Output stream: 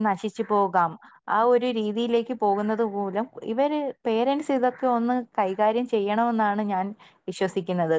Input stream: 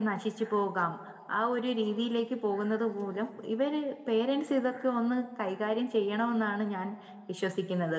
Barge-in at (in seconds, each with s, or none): none